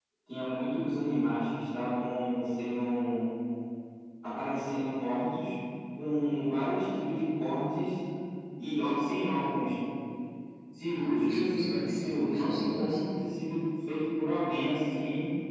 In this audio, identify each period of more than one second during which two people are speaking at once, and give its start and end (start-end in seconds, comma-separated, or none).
10.9-13.0